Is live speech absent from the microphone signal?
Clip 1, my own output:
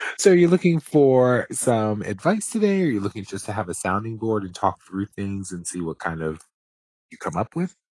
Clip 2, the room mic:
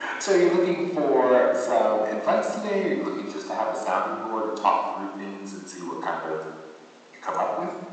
Yes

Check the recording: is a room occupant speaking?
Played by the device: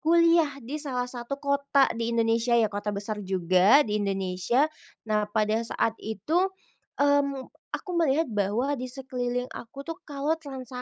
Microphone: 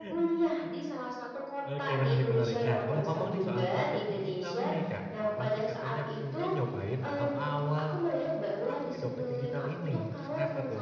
Yes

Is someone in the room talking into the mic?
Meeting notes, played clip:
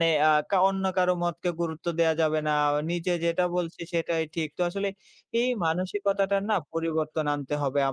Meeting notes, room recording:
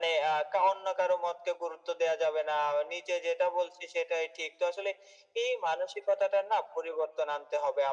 No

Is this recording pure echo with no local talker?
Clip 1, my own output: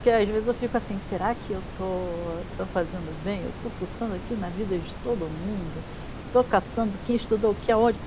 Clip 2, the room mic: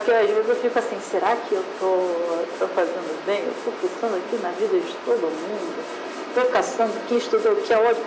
Yes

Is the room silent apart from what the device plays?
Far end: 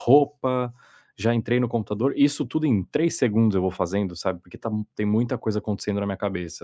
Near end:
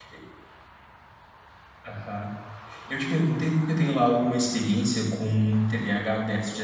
No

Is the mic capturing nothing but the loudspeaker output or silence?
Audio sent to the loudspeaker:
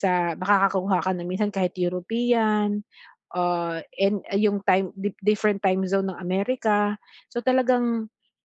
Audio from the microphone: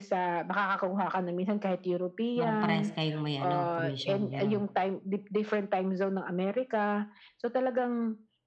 No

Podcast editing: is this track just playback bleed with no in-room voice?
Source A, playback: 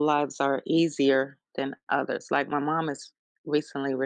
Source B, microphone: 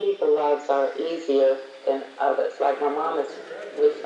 No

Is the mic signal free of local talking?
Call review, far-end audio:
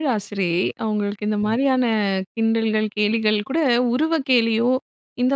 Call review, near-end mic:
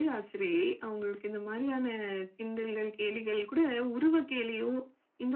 Yes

